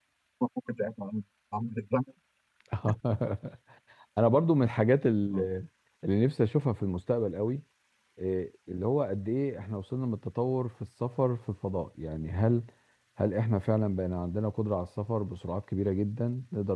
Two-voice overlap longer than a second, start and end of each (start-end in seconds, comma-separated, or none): none